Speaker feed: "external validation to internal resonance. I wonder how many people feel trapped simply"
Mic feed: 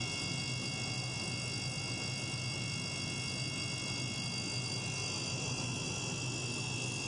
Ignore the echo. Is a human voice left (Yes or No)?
No